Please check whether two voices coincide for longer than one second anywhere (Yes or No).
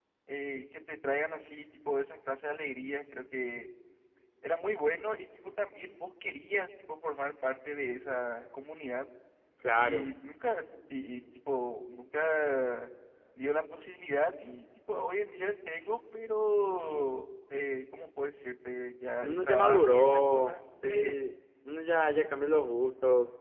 Yes